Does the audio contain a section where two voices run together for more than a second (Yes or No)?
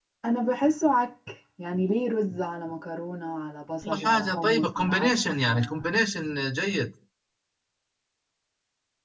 Yes